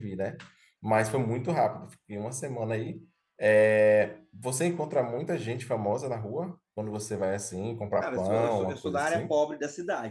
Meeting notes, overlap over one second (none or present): present